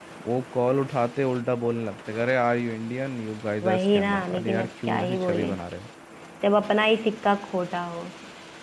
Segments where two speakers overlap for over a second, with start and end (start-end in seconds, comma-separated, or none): 3.6-5.5